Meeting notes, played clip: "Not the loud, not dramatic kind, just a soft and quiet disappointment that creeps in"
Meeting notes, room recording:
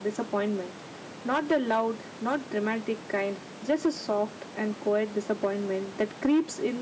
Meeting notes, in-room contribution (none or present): none